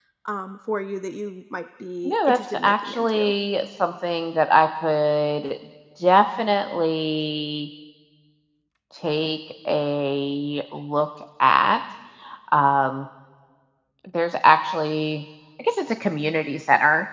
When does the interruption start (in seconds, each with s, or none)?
2.0 s